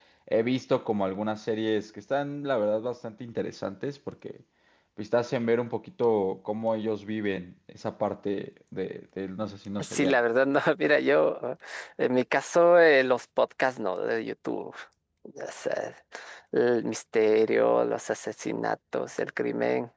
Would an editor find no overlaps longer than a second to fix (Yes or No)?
Yes